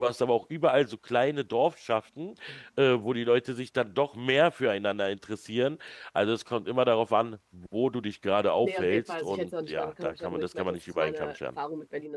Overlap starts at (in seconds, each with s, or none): 8.6 s